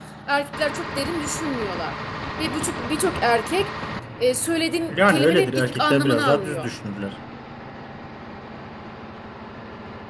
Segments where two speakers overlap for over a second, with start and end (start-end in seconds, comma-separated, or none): 4.9-6.7